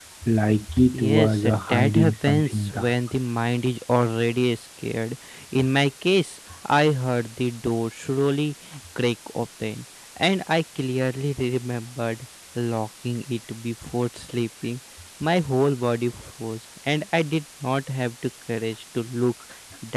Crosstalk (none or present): present